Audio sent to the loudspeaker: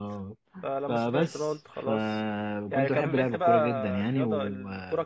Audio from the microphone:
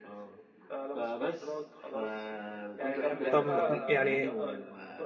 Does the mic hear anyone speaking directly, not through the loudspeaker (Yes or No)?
Yes